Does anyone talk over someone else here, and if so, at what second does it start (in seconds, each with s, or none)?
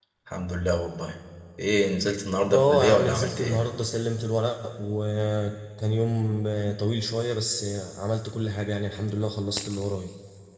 2.5 s